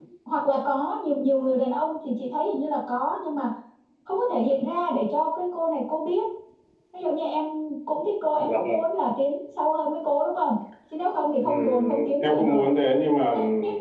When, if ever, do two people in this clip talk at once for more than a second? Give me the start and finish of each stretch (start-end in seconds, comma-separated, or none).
11.4-12.7